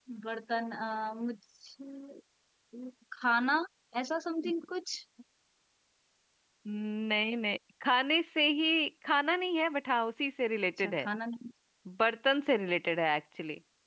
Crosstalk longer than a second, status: none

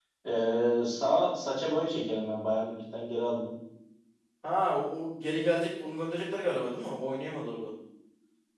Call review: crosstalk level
none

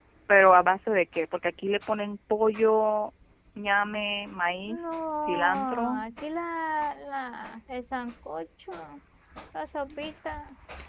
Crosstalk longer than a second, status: present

